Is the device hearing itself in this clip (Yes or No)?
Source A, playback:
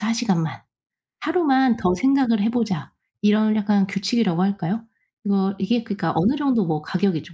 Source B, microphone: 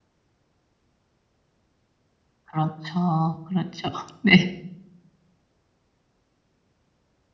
No